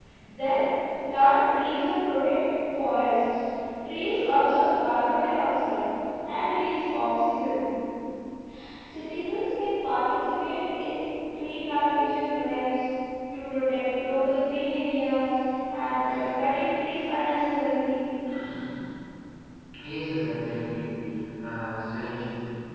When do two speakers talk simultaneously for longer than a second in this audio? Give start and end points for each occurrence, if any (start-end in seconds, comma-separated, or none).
none